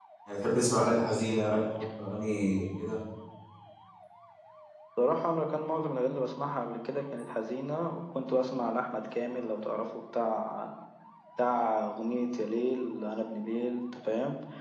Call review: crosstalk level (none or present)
none